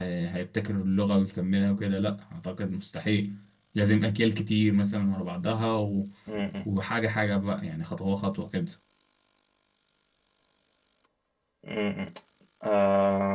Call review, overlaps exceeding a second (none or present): none